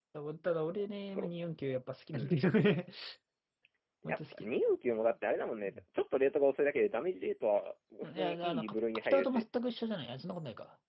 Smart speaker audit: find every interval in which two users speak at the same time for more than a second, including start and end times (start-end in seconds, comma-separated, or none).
8.0-9.4